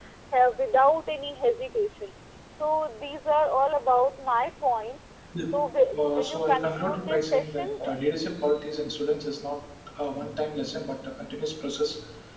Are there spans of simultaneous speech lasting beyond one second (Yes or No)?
Yes